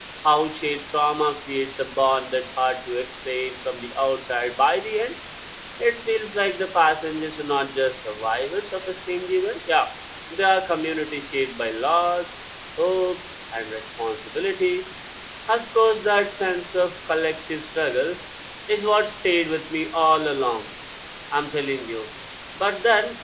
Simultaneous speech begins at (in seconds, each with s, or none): none